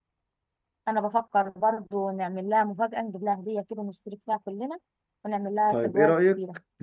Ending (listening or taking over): taking over